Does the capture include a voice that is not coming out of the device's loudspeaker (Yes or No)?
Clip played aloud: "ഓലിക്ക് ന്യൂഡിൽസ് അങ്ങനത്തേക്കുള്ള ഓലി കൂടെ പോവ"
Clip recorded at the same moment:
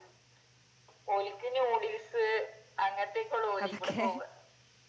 Yes